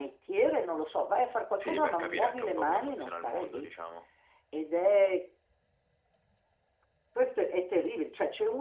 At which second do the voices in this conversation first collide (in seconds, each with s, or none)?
1.6 s